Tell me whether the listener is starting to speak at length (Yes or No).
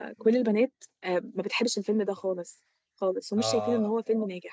No